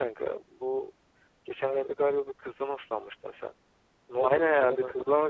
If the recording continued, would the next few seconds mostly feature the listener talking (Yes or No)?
Yes